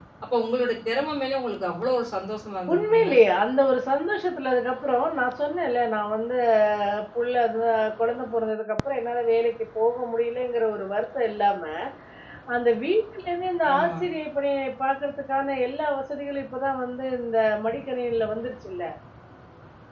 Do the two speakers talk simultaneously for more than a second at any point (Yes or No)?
No